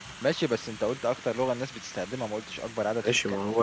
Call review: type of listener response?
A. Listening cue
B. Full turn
B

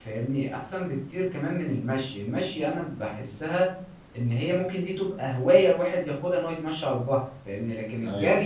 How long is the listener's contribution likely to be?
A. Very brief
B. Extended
A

